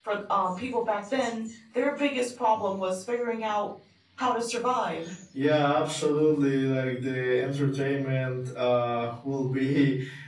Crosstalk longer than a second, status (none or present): none